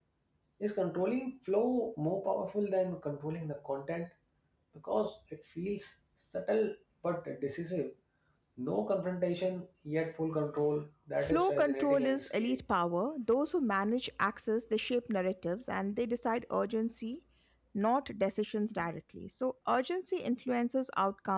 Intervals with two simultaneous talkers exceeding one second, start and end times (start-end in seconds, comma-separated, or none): 11.2-12.6